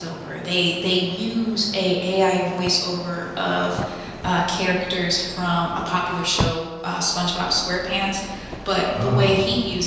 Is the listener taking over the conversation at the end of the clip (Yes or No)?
No